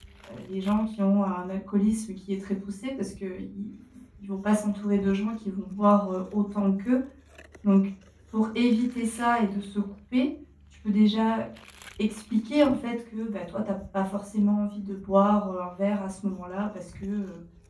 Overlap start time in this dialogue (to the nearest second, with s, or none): none